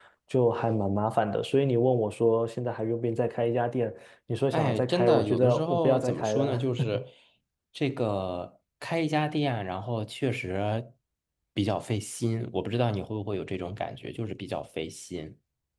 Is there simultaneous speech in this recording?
Yes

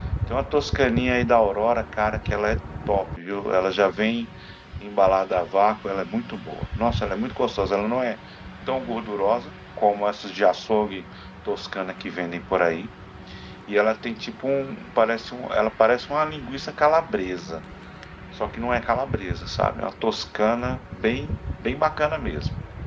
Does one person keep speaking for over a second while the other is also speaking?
No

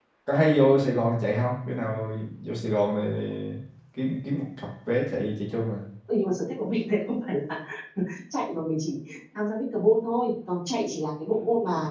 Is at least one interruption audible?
No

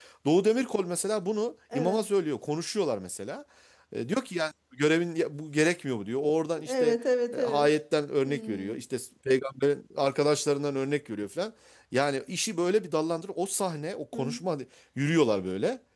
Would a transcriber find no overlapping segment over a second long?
Yes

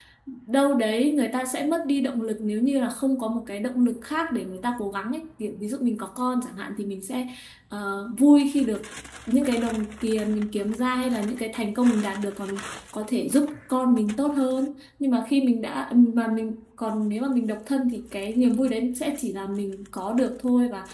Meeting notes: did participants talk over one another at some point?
No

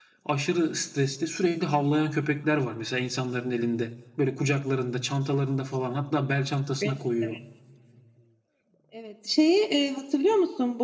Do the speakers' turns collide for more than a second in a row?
No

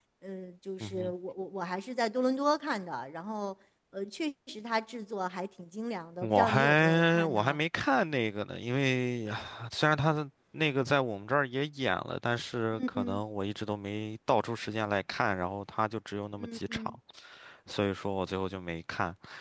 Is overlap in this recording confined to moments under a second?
No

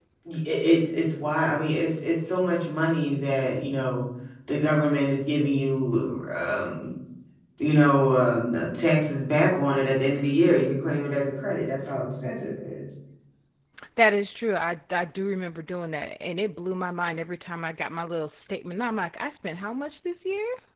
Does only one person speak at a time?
Yes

